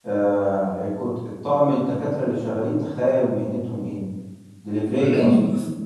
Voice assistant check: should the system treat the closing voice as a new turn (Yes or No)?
Yes